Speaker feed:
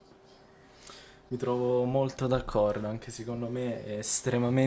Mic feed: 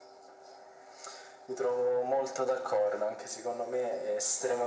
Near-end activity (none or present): none